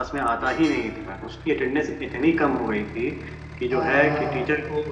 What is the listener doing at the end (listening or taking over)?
listening